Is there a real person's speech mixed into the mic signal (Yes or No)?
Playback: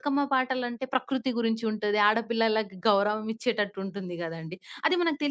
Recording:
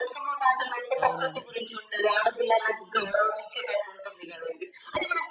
Yes